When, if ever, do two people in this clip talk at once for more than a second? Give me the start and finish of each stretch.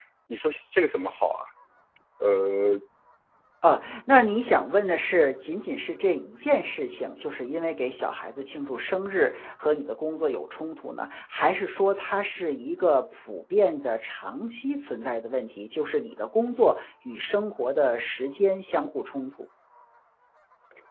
none

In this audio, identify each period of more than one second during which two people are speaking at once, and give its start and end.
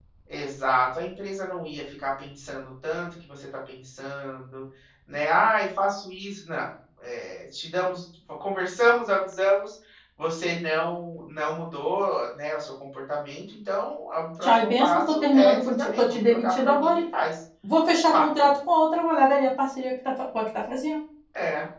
14.4-16.9

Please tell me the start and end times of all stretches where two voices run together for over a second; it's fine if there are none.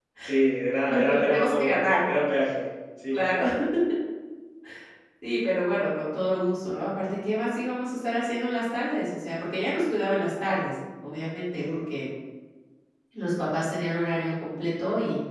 0.8-2.0

